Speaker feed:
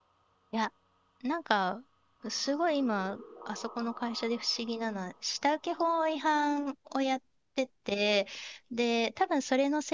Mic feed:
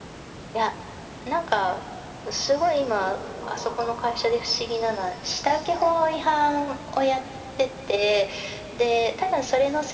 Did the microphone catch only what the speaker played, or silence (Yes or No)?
Yes